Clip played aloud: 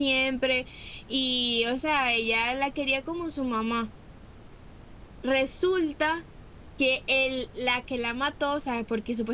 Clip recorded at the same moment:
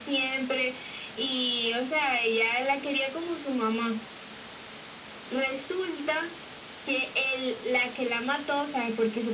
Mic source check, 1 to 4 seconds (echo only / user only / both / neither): echo only